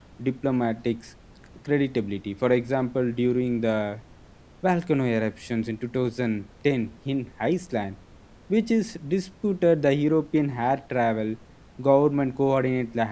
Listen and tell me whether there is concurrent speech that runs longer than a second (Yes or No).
No